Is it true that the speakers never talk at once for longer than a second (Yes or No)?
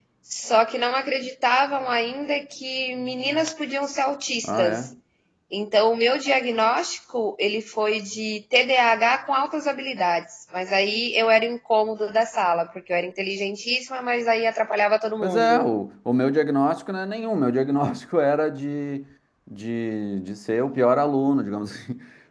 Yes